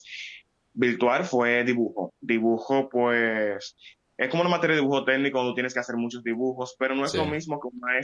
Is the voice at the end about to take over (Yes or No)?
No